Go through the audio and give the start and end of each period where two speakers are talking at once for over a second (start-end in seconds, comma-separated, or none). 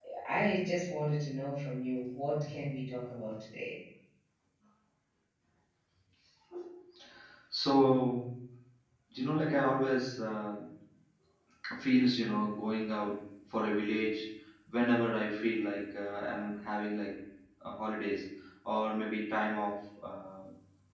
none